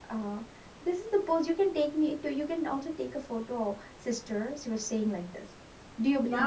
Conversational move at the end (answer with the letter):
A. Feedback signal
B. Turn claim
B